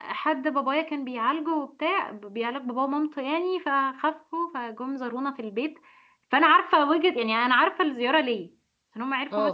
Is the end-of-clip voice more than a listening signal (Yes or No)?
No